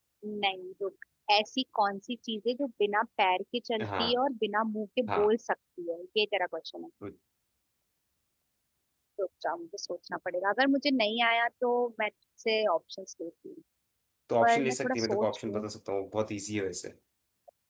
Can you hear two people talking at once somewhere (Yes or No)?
Yes